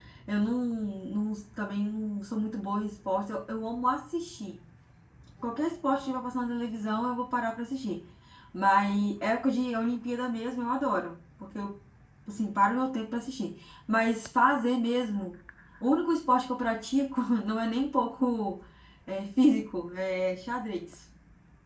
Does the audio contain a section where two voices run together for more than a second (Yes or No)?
No